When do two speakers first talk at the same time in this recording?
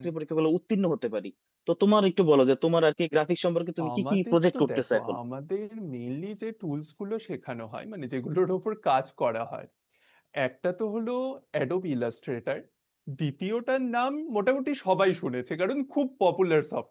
3.8 s

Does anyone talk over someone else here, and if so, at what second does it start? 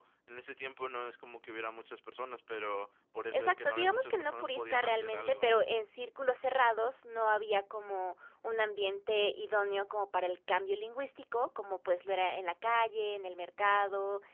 3.3 s

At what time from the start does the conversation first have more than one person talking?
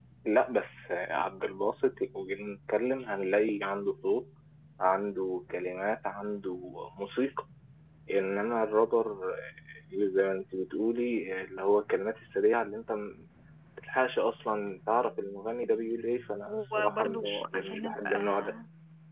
16.5 s

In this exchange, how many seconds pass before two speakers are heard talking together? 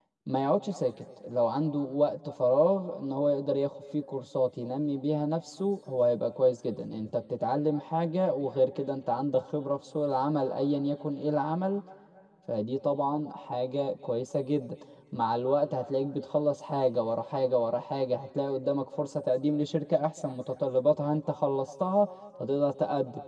none

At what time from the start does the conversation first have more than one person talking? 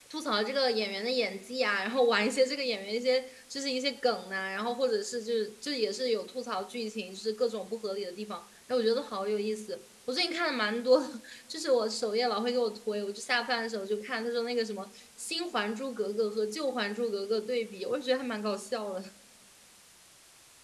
none

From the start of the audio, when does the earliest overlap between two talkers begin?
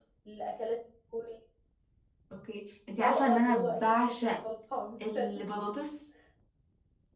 3.0 s

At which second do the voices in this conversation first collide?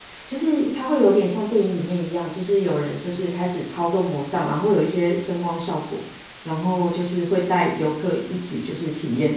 none

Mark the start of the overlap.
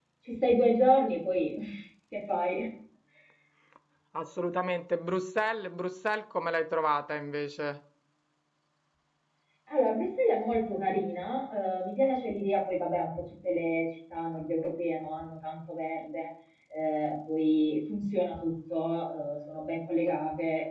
none

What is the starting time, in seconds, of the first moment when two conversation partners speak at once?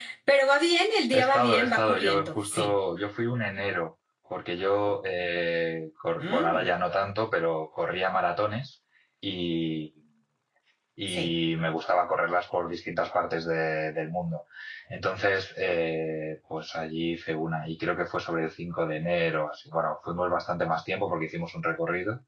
1.1 s

